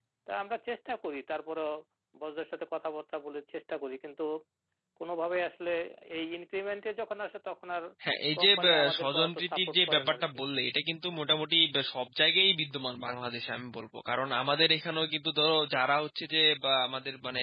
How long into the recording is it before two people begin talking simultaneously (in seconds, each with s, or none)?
8.4 s